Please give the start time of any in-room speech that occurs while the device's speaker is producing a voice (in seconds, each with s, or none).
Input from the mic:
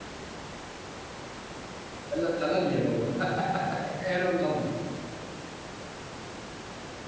2.2 s